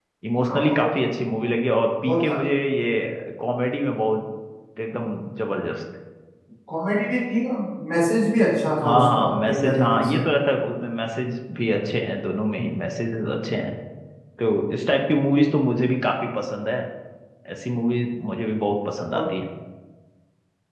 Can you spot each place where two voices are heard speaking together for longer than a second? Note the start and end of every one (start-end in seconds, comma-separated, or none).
8.8-10.2